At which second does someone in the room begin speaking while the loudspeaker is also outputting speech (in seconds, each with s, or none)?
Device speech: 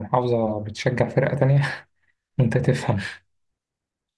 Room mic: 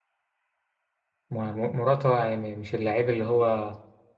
1.3 s